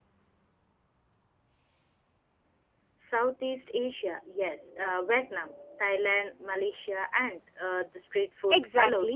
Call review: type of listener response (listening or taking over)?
taking over